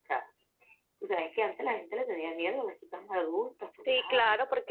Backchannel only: No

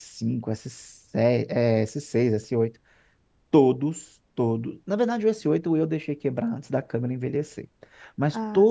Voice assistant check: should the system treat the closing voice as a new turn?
No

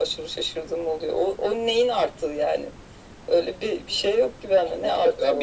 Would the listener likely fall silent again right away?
No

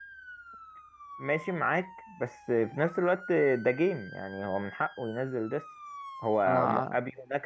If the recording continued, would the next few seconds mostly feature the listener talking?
No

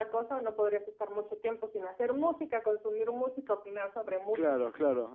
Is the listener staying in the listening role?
No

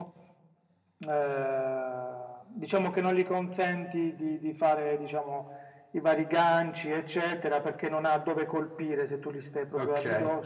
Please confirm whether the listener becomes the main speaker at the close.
Yes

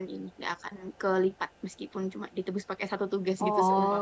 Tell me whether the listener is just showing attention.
No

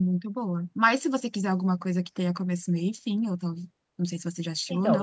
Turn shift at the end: Yes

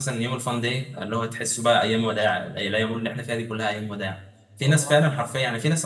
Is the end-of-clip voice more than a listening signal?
No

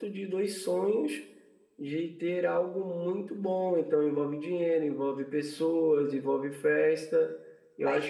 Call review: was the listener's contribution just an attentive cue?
No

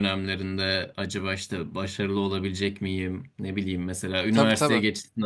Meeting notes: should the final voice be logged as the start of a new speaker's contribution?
No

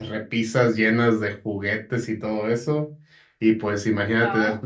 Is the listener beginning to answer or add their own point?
No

